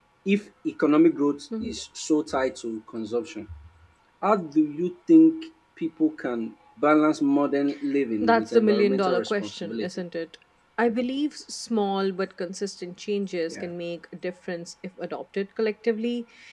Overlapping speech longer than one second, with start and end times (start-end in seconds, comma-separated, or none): 8.2-10.0